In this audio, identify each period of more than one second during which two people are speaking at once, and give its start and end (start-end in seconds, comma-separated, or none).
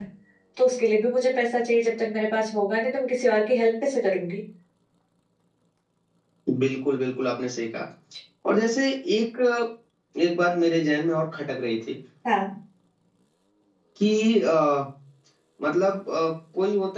none